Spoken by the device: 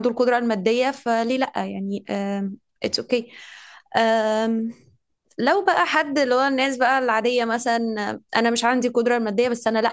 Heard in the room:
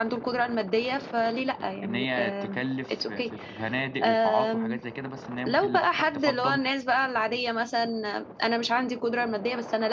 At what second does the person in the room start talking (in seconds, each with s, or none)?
1.8 s